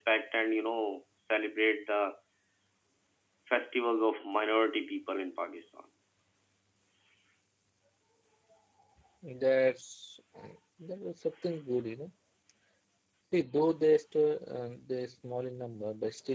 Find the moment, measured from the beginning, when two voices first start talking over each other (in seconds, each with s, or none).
none